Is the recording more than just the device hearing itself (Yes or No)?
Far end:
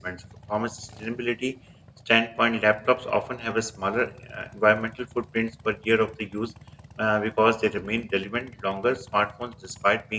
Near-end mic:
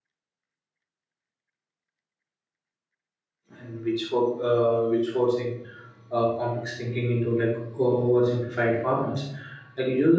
Yes